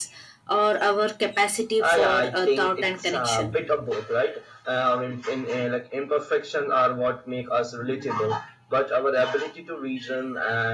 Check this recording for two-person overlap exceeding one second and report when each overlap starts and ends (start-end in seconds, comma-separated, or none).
1.8-3.5